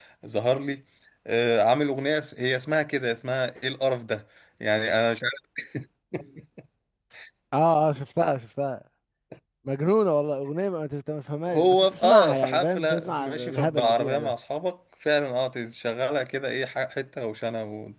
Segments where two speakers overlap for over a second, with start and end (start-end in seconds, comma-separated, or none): 11.5-14.3